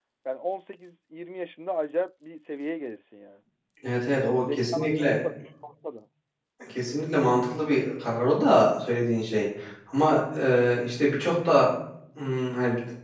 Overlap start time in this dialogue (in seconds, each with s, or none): 4.0 s